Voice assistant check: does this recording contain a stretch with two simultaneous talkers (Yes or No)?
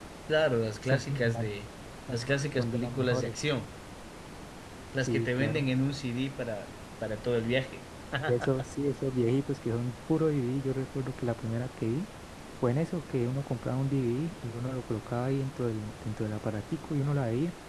Yes